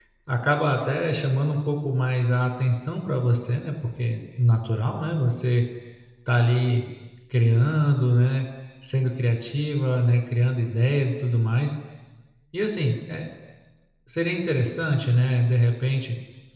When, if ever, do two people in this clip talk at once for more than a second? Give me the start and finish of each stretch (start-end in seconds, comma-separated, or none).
none